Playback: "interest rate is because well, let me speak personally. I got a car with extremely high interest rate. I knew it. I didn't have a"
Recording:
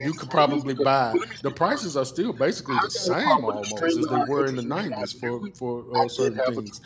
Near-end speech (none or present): present